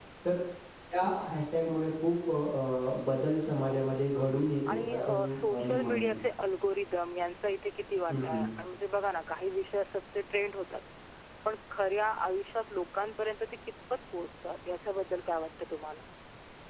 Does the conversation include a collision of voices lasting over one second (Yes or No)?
Yes